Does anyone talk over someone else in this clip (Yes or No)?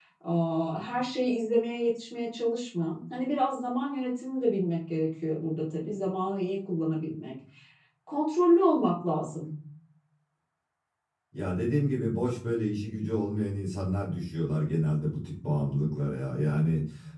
No